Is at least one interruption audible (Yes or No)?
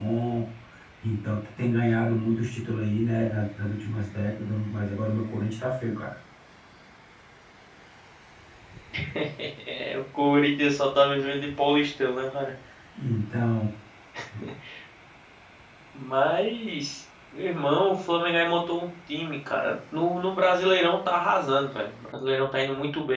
No